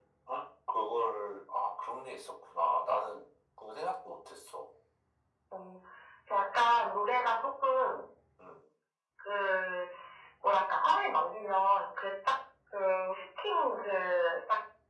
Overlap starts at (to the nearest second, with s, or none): none